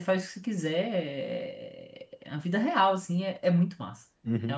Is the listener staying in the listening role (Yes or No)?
No